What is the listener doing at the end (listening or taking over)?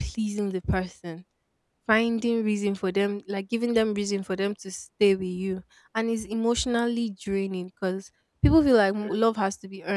listening